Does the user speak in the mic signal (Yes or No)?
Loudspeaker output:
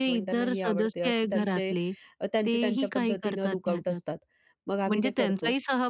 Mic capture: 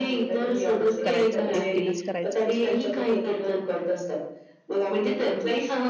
Yes